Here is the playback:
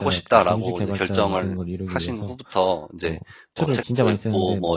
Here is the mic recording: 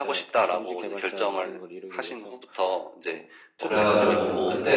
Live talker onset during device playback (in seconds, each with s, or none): 3.6 s